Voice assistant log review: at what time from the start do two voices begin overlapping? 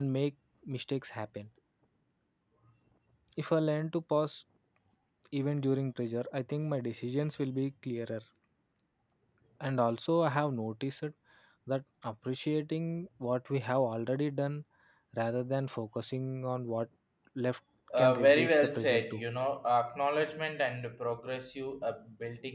18.0 s

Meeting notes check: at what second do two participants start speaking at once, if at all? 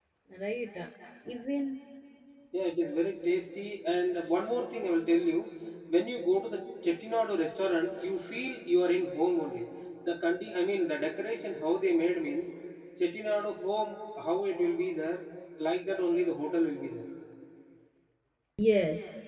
none

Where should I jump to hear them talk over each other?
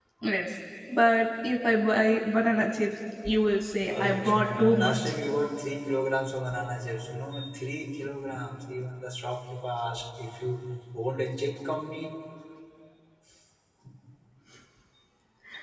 3.8 s

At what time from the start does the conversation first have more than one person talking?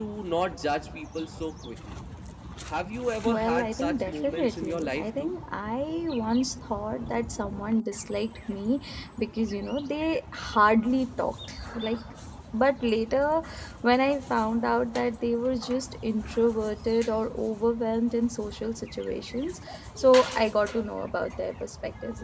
3.2 s

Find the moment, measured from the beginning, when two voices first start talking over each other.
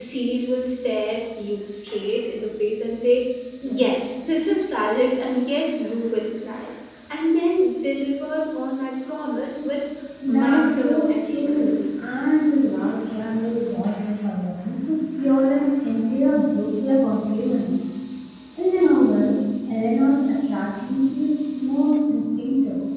10.3 s

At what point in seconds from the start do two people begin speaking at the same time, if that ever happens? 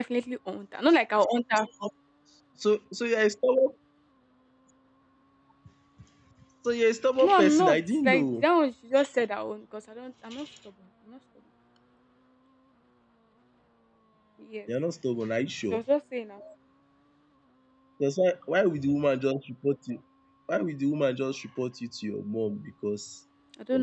7.2 s

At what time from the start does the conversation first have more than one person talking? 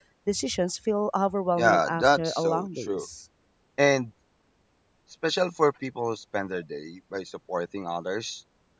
1.6 s

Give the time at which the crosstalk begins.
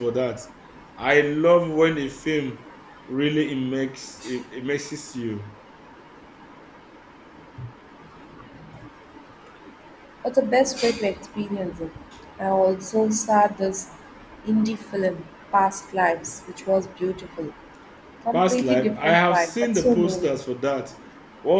18.3 s

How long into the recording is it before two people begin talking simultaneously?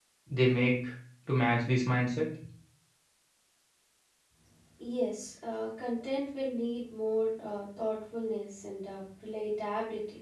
none

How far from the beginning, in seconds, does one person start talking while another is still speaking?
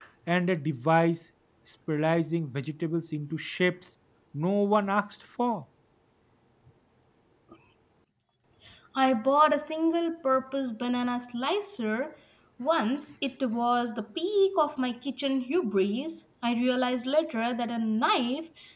none

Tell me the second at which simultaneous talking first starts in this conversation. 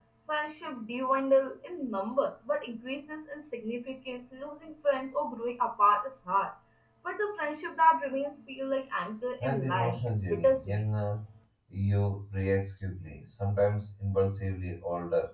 9.4 s

